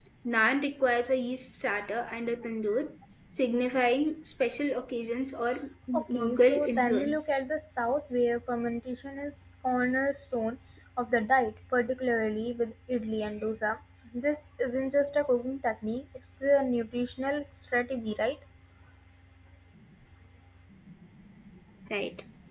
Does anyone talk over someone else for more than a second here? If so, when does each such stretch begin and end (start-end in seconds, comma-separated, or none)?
5.9-7.2